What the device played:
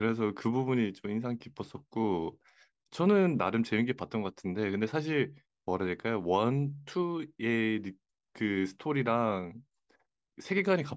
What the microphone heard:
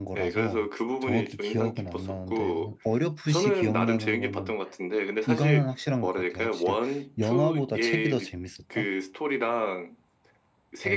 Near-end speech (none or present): present